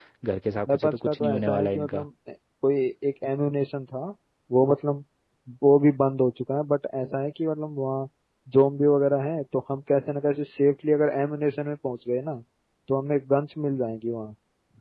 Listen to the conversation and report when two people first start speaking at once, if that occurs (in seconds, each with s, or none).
0.7 s